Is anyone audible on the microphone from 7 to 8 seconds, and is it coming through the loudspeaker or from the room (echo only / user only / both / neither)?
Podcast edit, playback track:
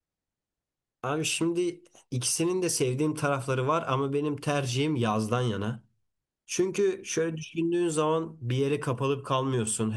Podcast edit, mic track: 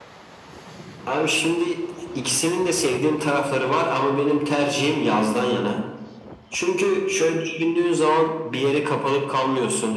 echo only